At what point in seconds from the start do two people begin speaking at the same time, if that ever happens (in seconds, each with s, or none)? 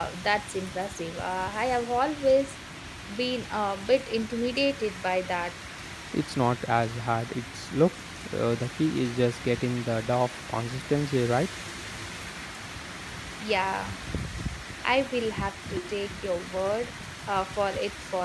none